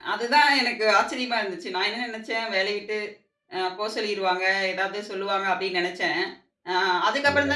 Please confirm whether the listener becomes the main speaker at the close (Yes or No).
No